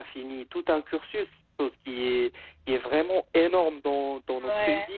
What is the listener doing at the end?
listening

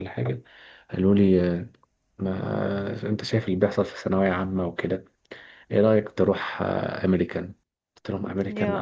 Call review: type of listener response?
listening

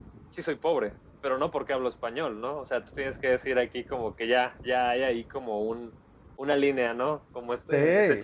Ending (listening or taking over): listening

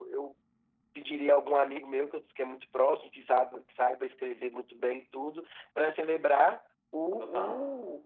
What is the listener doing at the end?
listening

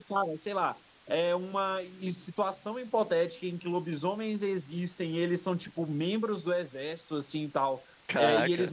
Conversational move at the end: listening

